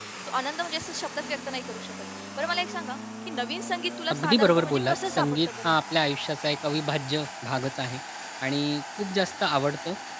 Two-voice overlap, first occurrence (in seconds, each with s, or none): 4.1 s